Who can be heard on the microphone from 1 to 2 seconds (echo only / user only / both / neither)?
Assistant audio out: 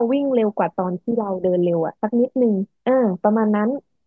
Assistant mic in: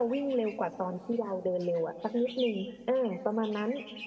echo only